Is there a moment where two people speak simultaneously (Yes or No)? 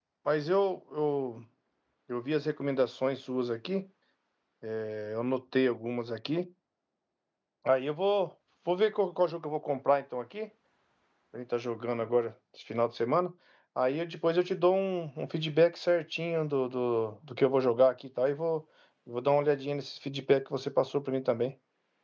No